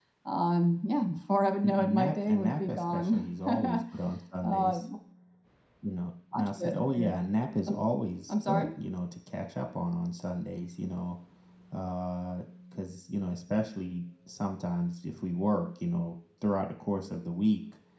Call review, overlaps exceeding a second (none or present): present